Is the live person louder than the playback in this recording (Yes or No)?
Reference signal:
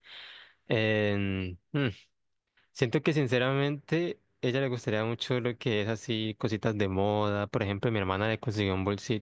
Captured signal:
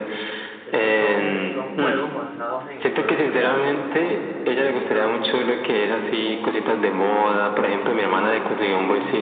No